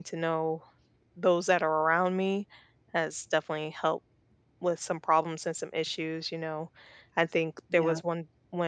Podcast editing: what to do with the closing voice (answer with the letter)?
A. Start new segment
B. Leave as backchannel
B